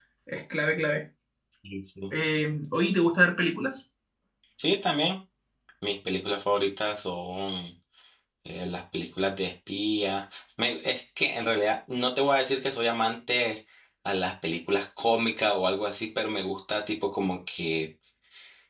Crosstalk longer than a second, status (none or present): none